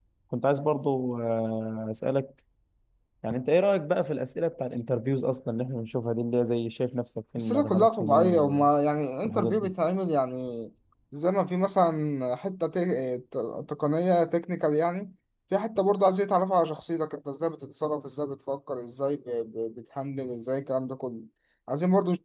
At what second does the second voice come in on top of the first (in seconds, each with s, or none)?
7.4 s